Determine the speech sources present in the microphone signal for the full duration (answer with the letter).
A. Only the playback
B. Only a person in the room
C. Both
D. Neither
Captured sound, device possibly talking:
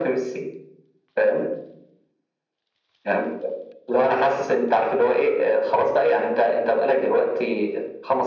A